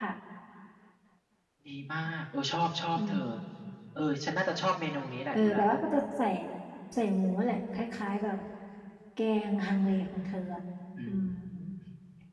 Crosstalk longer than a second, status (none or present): none